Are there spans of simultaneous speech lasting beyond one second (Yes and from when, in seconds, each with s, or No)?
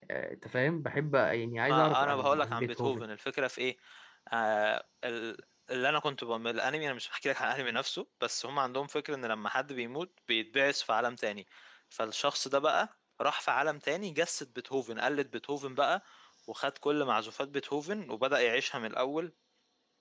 Yes, from 1.6 s